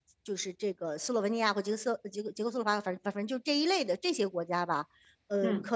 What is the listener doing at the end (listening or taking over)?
listening